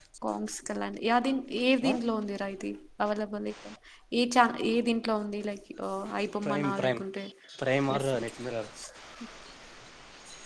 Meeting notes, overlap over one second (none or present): none